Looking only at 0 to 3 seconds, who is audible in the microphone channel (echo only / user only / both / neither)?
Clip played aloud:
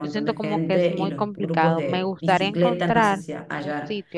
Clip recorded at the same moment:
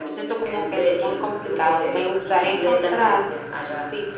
echo only